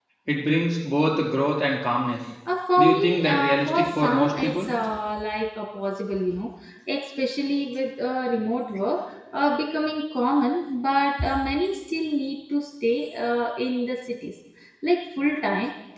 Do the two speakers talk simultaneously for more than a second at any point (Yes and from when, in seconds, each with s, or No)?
Yes, from 2.8 s